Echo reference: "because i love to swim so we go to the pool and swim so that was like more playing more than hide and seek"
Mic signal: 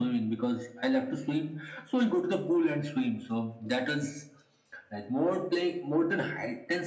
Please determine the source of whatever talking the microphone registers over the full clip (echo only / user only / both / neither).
echo only